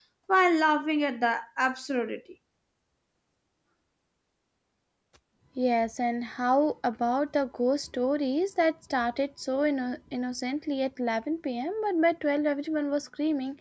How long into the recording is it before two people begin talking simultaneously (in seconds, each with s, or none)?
none